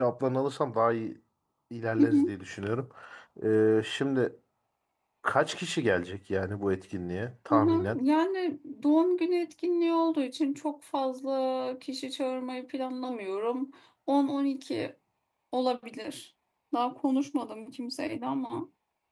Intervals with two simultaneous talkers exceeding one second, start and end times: none

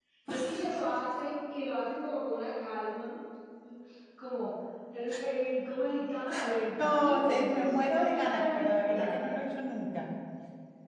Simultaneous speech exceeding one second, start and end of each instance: 6.8-9.4

